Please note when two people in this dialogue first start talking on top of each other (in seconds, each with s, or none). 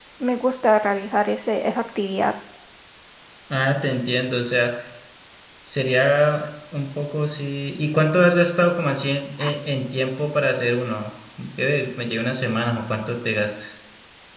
none